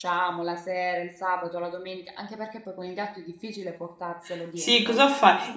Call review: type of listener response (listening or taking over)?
taking over